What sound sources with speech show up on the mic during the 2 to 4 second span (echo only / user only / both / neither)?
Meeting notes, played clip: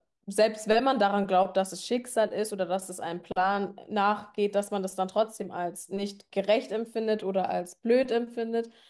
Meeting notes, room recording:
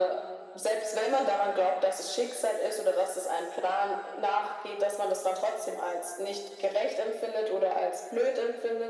echo only